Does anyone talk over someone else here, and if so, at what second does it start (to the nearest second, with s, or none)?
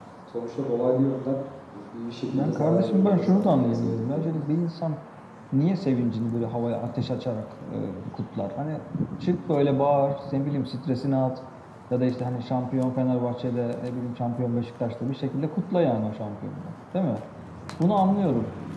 2 s